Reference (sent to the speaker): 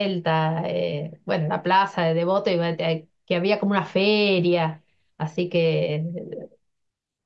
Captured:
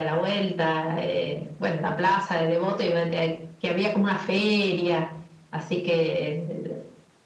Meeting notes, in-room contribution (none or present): none